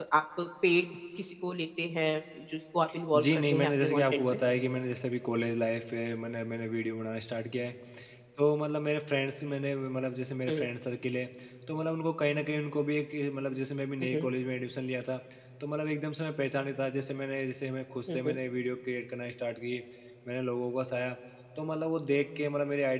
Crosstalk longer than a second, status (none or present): present